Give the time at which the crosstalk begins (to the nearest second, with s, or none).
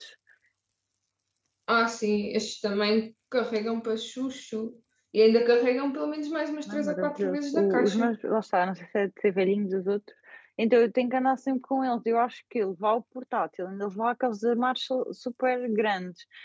7 s